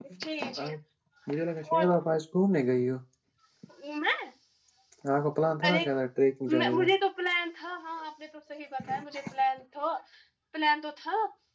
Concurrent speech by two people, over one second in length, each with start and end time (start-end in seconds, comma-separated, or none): none